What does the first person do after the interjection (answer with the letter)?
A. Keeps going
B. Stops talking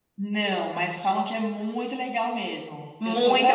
B